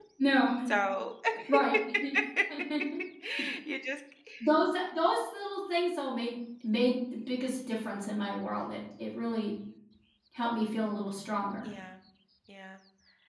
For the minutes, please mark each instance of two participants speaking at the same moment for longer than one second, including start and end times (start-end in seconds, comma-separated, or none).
none